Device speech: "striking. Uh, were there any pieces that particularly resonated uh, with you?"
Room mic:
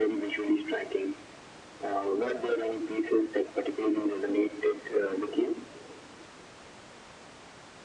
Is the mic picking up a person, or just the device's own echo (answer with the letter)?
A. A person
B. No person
B